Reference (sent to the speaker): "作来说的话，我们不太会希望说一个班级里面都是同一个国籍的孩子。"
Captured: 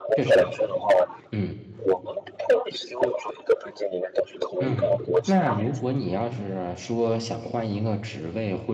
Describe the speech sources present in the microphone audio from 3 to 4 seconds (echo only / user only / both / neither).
echo only